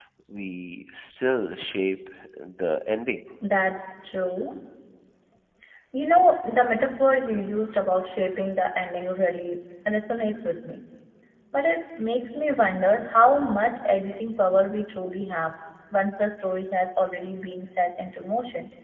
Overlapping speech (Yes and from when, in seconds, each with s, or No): No